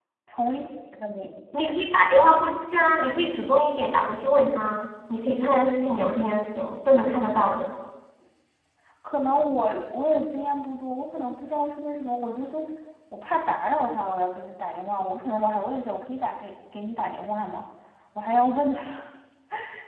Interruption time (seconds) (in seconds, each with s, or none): none